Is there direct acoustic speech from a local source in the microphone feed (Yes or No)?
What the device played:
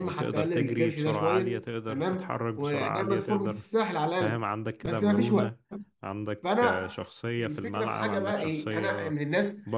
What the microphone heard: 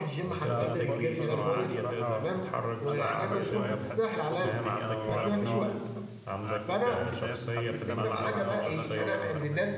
Yes